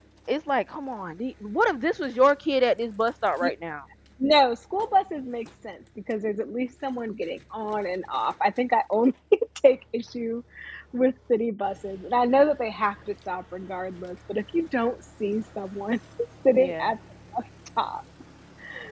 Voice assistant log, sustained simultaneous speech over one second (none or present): none